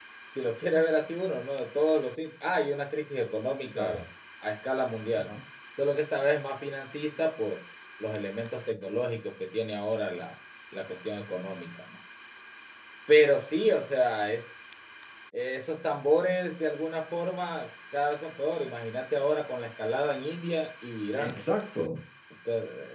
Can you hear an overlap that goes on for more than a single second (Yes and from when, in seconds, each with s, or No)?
No